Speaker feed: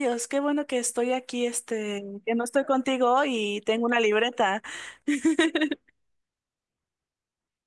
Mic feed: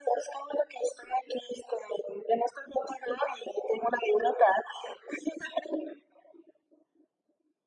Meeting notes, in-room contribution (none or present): none